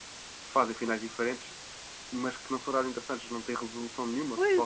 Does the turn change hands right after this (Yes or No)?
Yes